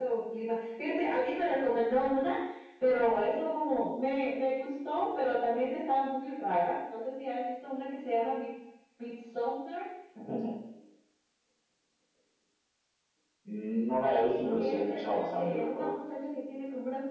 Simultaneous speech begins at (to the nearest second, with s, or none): 14 s